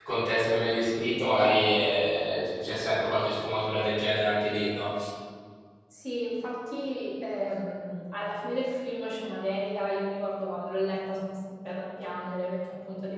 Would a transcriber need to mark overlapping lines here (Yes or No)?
No